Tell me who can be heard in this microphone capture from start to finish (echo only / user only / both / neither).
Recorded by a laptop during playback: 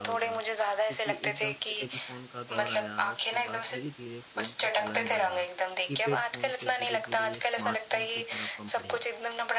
both